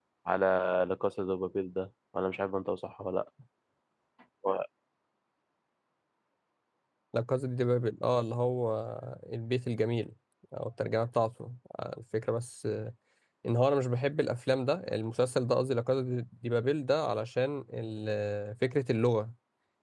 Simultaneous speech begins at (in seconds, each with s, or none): none